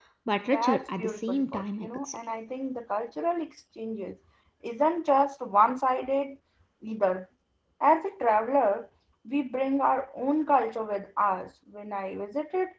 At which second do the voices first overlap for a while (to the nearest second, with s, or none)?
1 s